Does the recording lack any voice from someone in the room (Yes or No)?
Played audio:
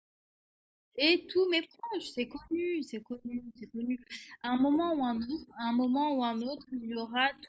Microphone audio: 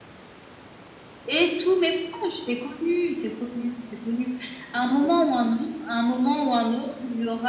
Yes